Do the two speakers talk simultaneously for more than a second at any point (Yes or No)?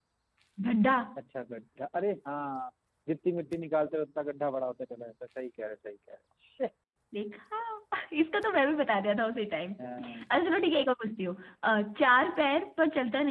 No